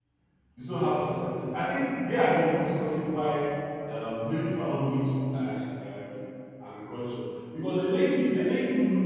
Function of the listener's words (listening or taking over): listening